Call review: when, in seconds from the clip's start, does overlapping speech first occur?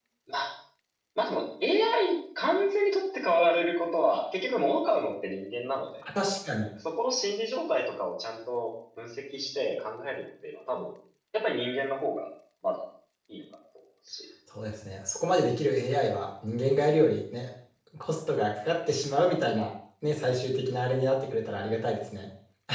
none

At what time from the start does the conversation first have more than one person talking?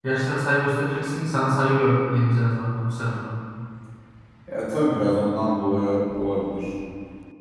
none

